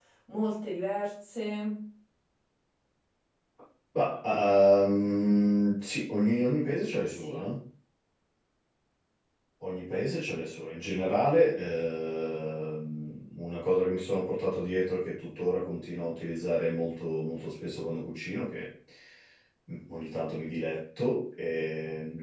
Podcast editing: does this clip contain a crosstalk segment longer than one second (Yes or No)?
No